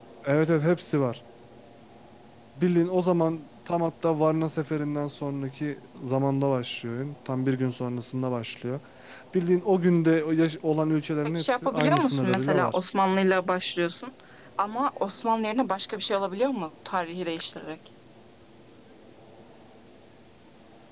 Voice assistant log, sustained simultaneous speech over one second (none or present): present